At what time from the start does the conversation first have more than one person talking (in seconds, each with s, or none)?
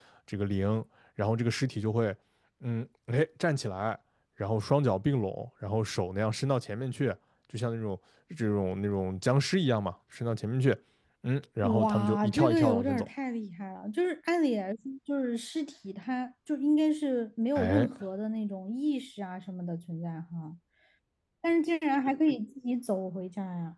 11.8 s